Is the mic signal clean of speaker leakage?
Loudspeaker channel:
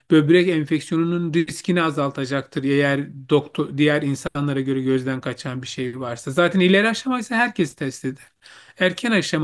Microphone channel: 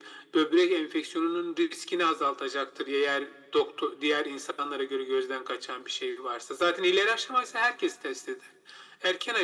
No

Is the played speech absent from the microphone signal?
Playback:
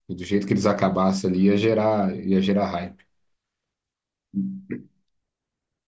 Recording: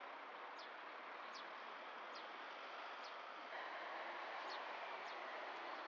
Yes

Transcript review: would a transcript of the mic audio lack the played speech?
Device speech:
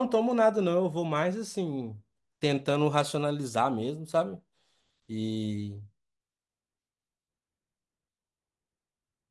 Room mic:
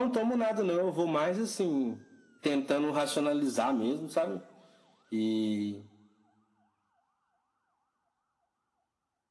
No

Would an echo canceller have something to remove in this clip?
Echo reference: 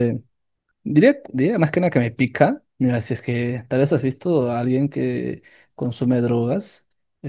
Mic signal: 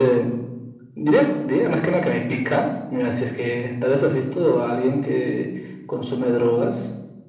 Yes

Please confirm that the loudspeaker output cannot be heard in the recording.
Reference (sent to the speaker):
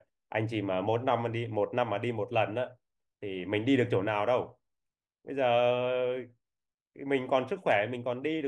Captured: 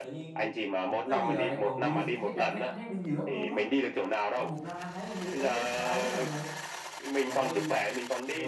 No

